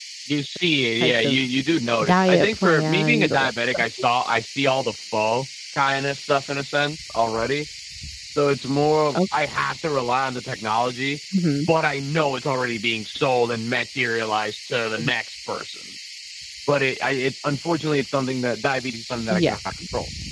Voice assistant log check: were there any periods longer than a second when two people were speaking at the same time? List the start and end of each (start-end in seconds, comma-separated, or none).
2.0-3.5